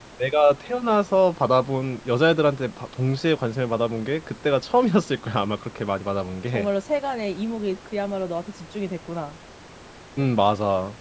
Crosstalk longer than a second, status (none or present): none